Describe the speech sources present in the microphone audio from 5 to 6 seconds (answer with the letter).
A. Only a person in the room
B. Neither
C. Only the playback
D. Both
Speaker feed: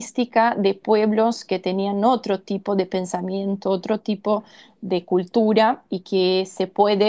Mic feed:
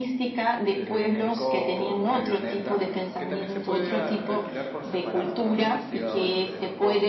D